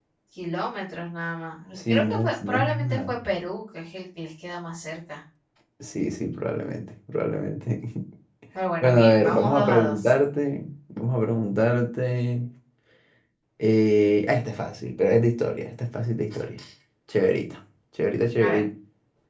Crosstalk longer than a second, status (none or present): present